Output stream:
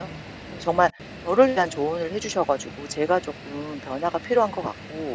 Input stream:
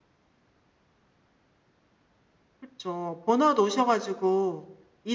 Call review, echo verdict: none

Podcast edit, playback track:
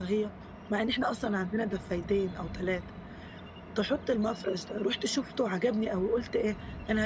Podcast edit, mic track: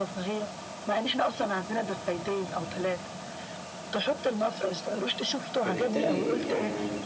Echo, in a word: present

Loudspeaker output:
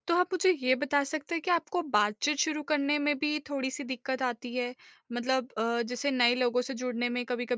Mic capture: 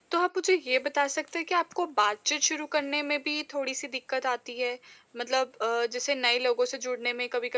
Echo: present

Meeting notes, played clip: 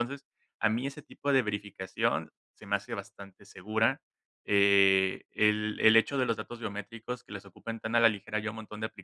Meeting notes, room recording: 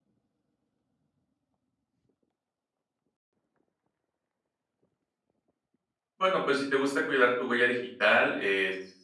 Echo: none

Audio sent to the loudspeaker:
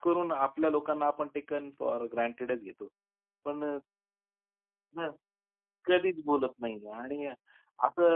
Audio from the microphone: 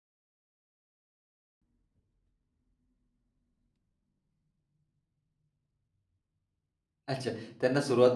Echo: none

